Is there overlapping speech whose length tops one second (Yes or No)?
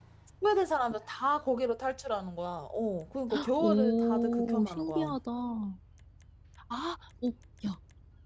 Yes